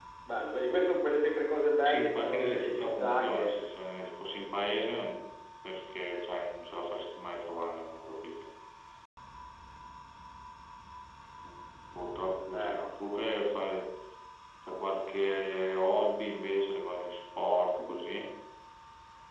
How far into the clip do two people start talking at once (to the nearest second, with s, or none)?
2 s